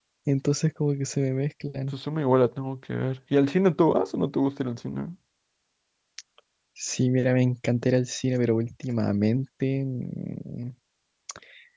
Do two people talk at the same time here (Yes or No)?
No